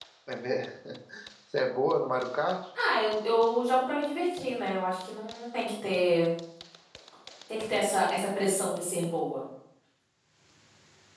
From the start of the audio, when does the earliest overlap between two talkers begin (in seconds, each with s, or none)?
none